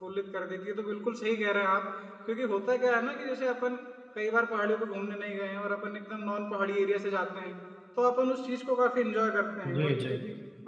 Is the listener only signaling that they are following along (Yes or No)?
Yes